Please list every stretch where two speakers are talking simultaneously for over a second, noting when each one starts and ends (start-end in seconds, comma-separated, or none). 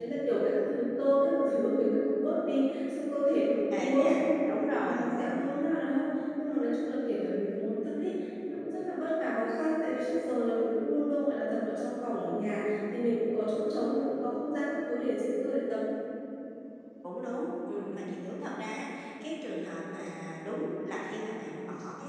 3.3-5.4